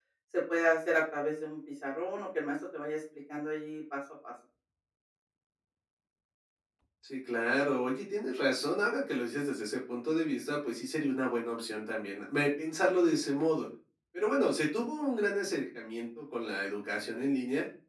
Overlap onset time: none

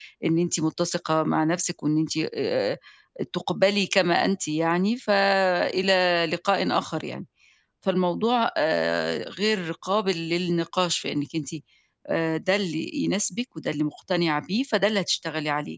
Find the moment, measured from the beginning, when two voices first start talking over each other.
none

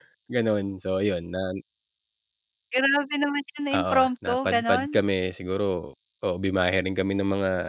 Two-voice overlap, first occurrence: 3.7 s

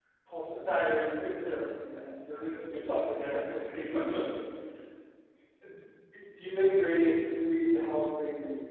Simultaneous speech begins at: 2.3 s

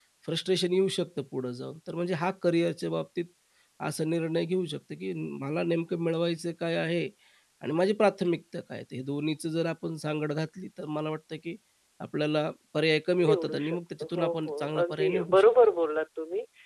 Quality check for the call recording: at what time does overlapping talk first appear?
13.2 s

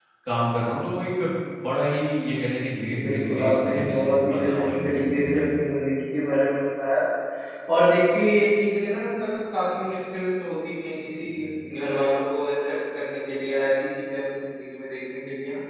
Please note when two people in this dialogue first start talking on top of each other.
2.9 s

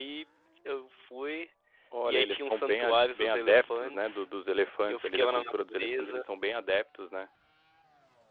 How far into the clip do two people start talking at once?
2.0 s

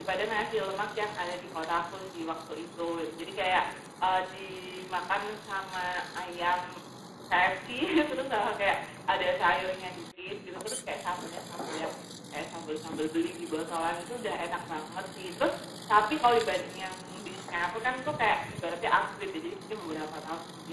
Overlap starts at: none

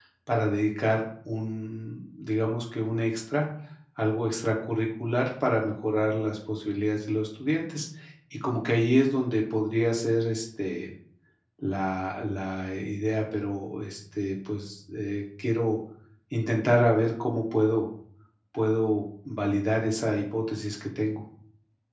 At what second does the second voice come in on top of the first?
none

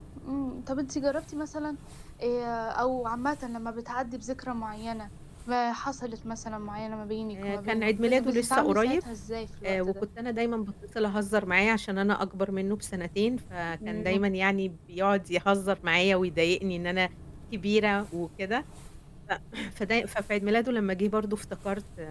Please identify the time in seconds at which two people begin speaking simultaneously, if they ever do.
7.3 s

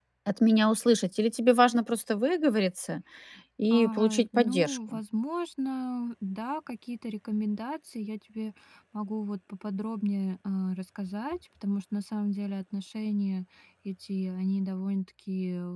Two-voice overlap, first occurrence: 3.7 s

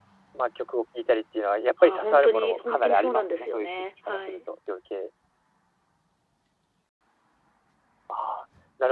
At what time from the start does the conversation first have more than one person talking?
1.8 s

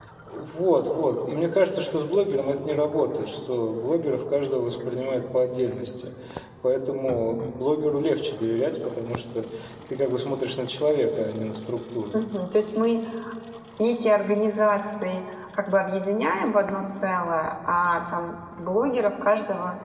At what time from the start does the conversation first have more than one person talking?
none

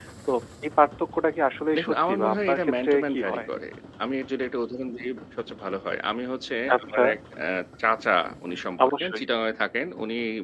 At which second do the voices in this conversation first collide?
1.8 s

